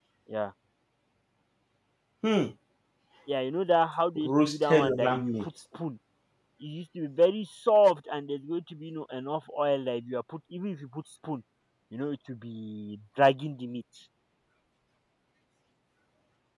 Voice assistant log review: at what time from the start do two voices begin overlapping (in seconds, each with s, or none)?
4.2 s